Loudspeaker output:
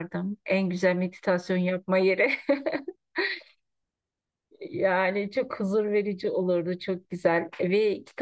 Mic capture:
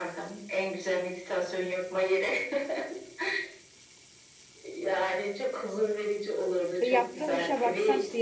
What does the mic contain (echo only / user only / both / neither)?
both